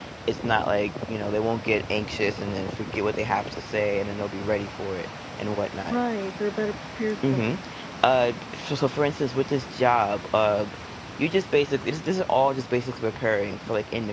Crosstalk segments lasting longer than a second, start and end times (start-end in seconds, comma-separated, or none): none